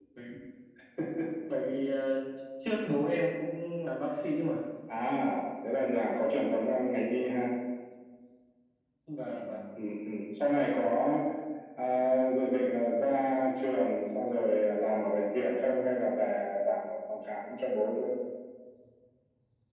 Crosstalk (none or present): none